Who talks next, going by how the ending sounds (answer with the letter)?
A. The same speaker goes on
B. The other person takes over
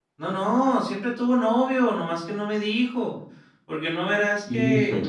A